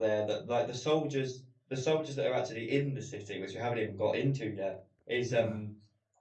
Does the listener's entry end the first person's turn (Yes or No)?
No